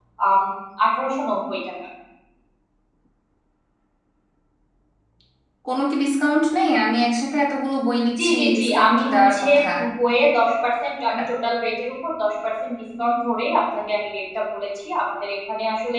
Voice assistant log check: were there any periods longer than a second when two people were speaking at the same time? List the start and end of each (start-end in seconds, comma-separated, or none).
8.2-9.6